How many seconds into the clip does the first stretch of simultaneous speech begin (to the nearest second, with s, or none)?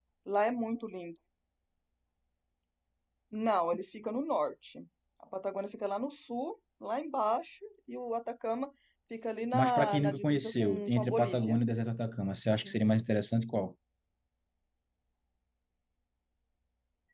10 s